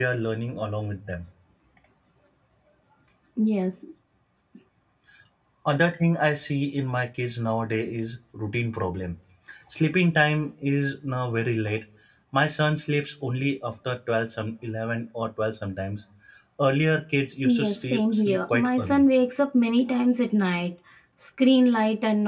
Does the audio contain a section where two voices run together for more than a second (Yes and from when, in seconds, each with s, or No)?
Yes, from 17.4 s